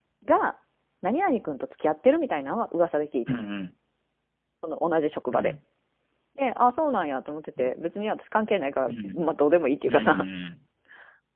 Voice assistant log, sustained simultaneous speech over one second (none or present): none